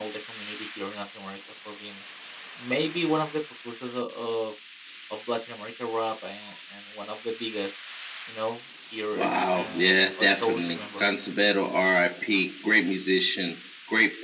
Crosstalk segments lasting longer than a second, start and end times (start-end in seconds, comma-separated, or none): 9.1-11.0